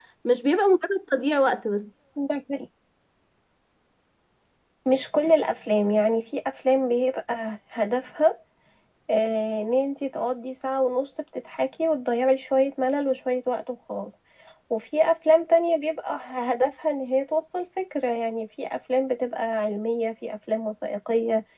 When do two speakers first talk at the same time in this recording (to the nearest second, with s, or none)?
none